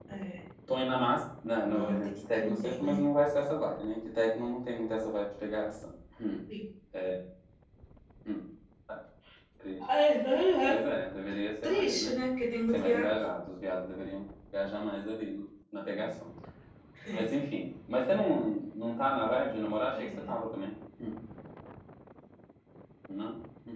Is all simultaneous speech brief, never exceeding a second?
No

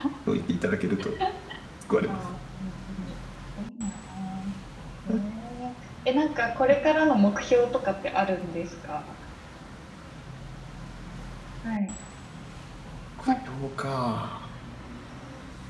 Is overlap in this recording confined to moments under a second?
Yes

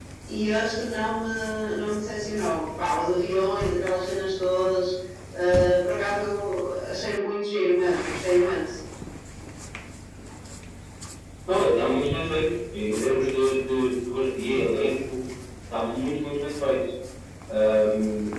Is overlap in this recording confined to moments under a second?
Yes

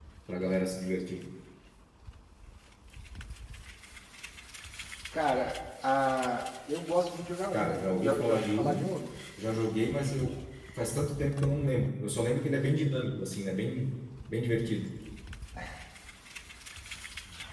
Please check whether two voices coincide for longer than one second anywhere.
Yes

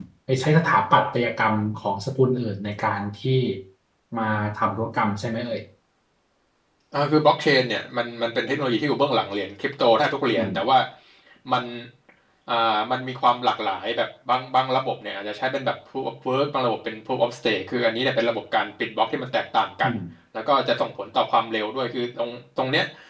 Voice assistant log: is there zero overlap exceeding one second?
Yes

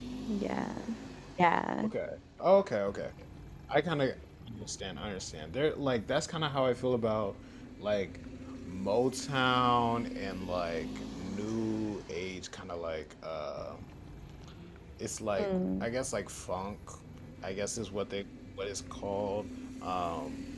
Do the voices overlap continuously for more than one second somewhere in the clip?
No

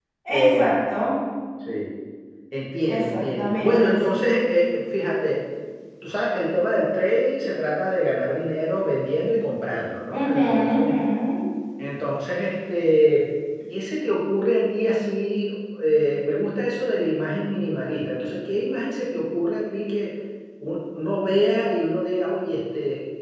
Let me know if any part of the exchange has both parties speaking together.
Yes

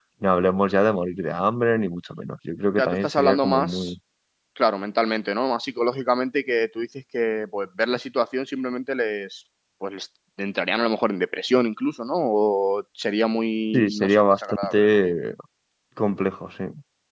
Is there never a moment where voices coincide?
No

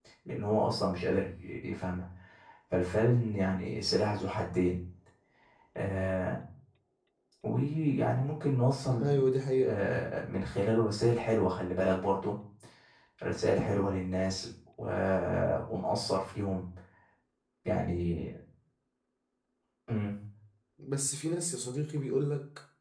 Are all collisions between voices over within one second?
Yes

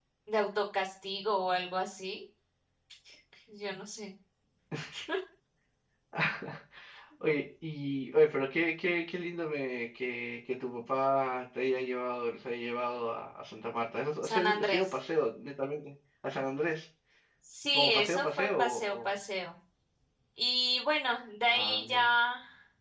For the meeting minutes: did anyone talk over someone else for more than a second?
Yes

